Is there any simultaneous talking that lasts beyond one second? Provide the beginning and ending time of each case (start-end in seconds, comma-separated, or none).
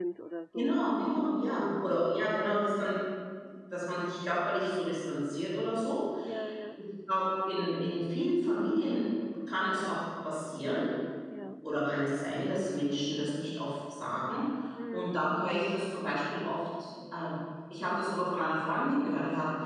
0.6-1.9